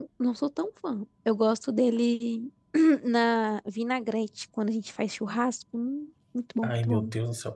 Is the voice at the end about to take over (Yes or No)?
Yes